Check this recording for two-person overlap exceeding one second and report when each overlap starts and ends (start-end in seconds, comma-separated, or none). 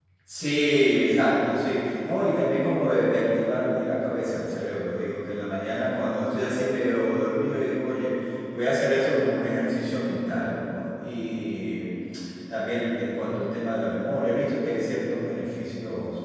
none